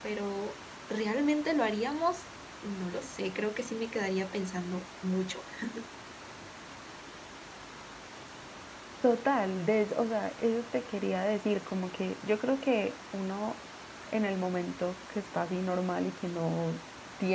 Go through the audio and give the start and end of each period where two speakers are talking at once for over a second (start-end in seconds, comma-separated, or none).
none